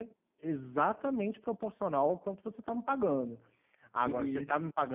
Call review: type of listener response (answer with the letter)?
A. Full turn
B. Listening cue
B